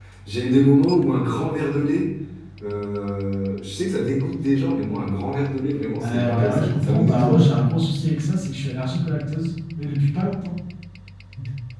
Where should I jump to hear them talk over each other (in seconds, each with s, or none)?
6.0 s